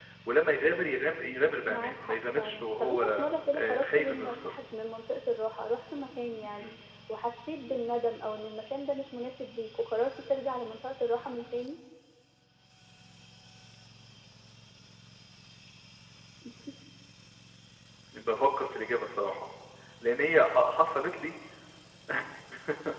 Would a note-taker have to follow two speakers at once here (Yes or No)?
Yes